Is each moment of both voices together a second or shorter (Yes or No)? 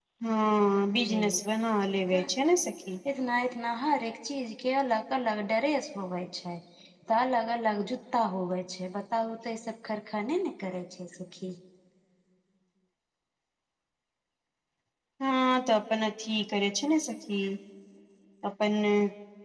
Yes